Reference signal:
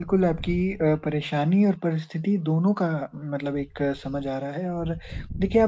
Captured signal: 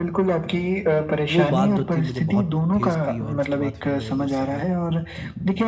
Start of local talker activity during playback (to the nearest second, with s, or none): 1 s